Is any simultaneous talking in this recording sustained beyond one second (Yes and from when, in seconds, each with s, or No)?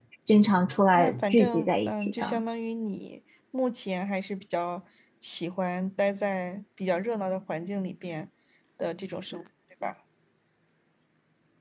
Yes, from 0.9 s